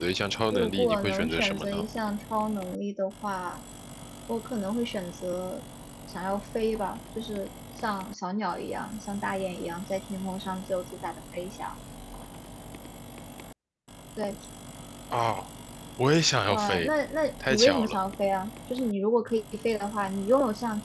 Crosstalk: present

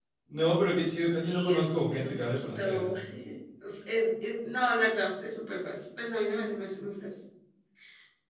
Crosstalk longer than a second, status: present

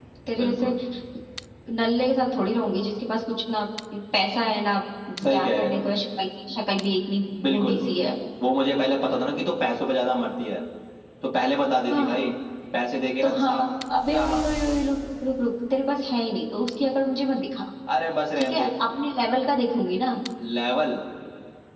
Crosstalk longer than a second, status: none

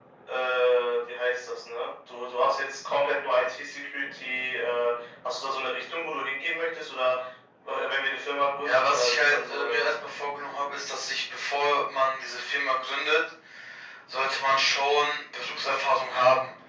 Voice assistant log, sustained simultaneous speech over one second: present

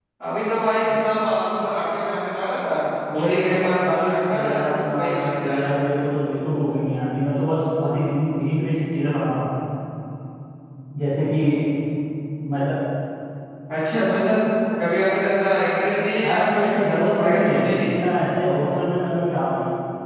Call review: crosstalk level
present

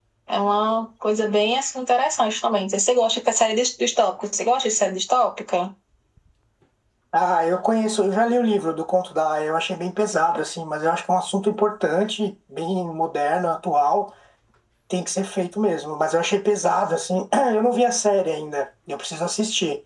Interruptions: none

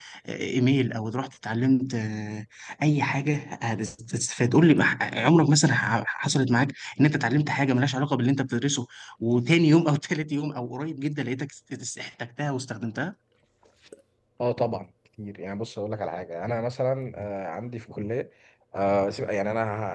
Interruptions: none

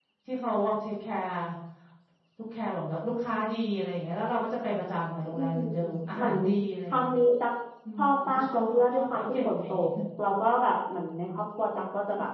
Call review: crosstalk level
present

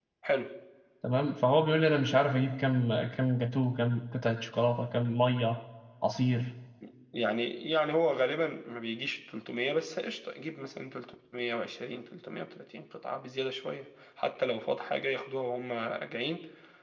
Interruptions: none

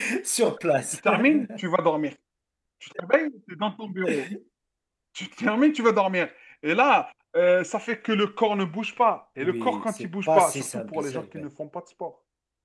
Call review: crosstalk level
present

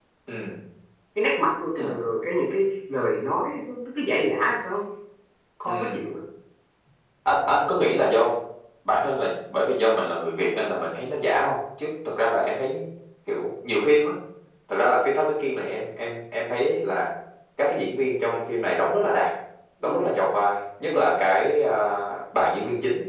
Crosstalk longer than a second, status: none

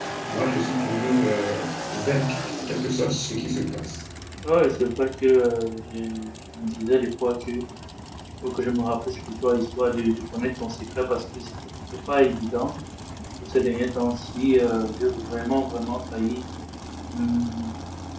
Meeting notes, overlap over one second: none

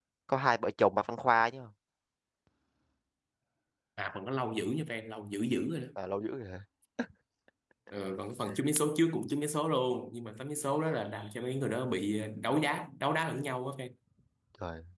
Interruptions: none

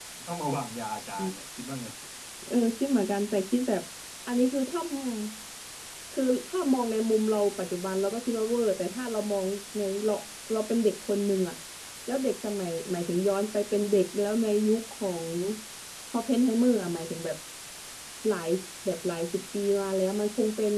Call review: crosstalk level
none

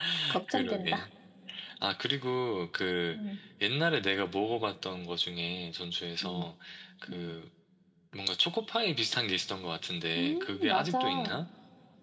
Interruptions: present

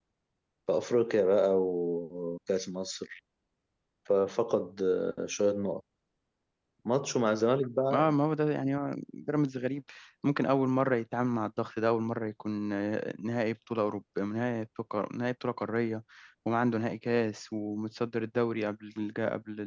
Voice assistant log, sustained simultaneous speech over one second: none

